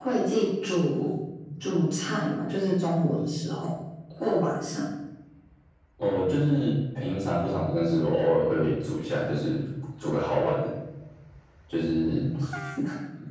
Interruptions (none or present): none